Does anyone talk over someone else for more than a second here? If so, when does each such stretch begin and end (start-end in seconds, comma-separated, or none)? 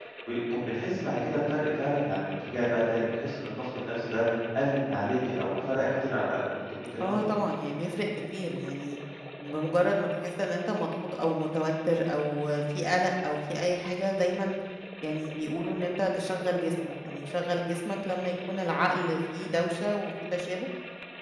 none